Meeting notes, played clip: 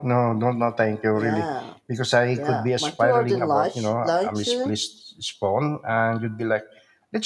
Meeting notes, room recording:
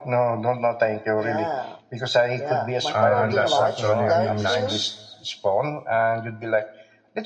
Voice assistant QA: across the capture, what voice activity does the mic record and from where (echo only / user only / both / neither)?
both